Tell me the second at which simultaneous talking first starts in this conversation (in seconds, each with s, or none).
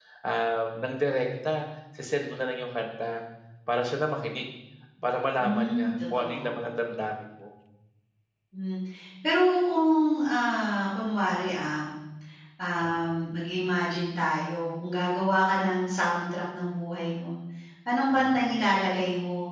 5.4 s